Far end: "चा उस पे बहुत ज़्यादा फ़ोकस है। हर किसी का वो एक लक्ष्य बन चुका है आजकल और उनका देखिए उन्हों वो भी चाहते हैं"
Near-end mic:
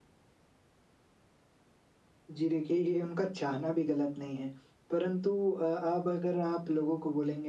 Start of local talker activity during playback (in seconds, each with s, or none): 2.4 s